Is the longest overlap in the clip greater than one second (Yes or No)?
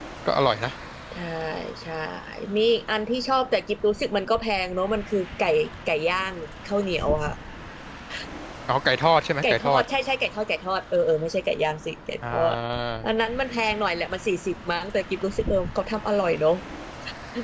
No